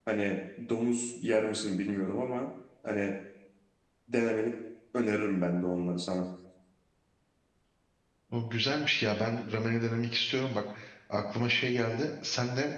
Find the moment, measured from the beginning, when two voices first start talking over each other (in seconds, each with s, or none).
none